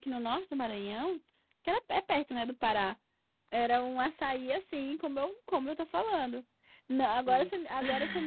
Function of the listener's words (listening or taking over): listening